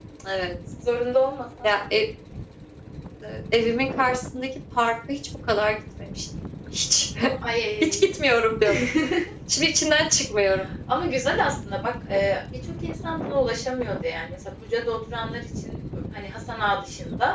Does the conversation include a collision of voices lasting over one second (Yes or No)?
No